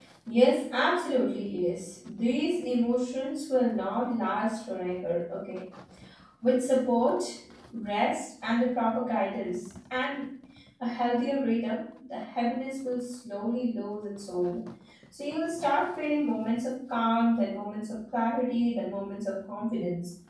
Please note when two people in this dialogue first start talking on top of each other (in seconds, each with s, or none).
none